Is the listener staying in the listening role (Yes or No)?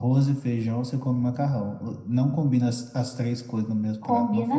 No